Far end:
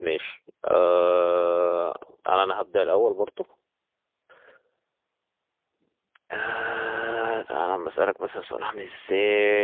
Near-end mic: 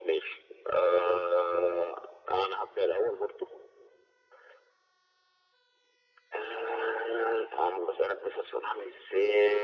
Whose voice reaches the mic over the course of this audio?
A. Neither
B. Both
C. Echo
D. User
C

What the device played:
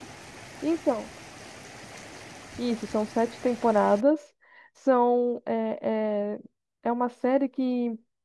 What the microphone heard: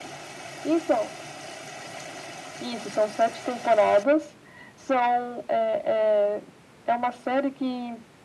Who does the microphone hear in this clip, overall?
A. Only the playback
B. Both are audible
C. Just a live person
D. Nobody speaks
A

